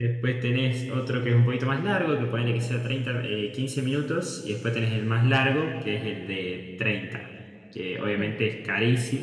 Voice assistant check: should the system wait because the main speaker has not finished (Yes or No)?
Yes